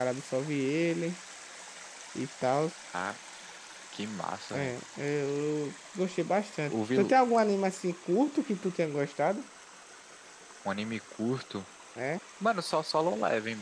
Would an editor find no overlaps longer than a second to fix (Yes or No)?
Yes